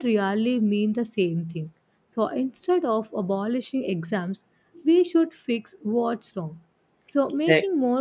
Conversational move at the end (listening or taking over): listening